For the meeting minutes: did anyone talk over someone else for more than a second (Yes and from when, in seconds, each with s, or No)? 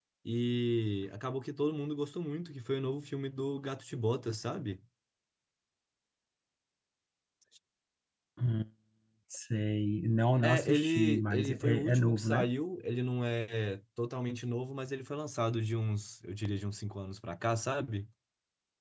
Yes, from 10.4 s